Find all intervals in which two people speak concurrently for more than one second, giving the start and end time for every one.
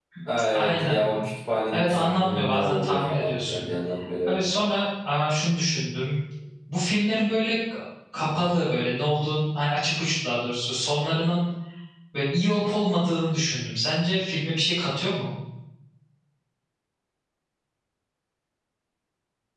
1.7-3.7

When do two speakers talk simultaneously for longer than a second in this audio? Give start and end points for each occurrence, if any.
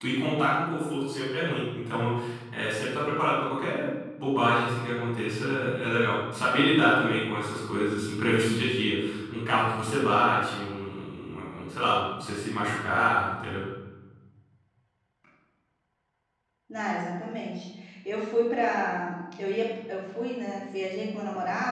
none

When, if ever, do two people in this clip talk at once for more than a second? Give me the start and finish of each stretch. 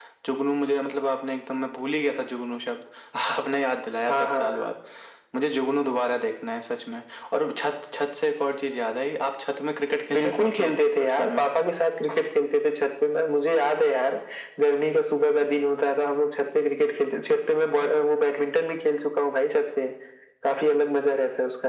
10.1-11.4

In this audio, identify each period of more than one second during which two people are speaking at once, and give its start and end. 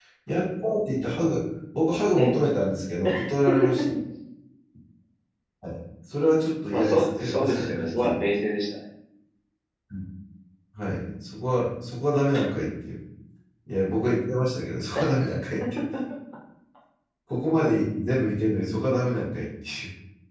6.7-8.2

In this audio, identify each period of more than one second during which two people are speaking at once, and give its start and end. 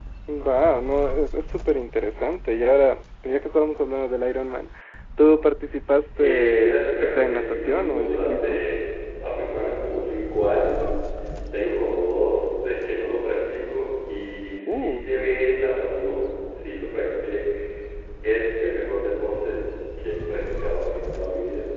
6.2-8.6

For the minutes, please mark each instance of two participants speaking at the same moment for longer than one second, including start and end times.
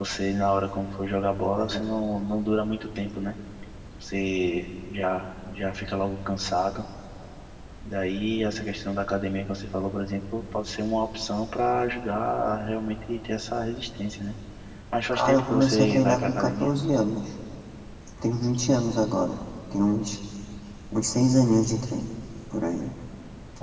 15.1-16.7

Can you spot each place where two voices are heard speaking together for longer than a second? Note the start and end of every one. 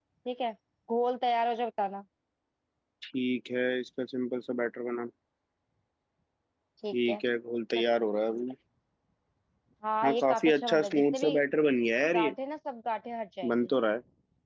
10.0-11.3

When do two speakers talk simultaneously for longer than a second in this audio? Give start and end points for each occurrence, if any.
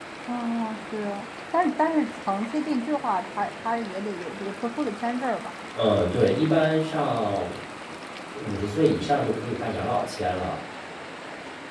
none

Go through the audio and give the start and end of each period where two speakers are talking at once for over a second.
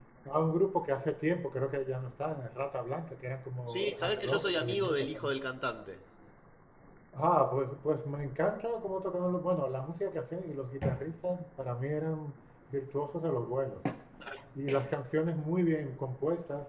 3.7-5.3

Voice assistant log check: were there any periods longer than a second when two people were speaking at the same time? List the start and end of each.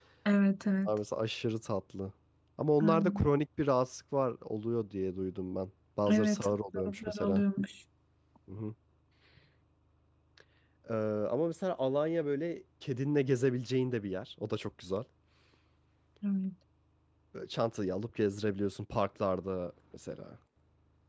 6.1-7.4

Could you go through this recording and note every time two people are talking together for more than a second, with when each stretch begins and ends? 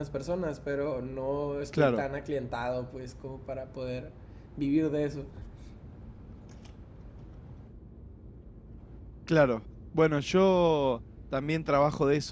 none

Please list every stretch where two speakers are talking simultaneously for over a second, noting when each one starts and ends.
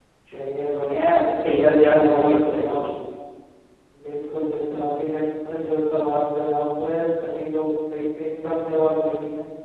1.4-2.9

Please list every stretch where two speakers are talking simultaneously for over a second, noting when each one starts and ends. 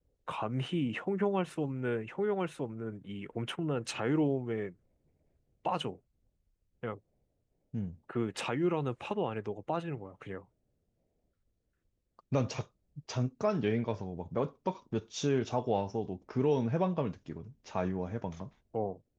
none

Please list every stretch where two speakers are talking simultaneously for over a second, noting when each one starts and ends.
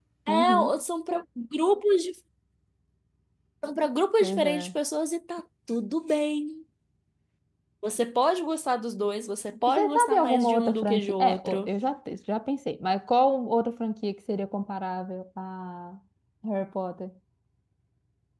9.7-11.7

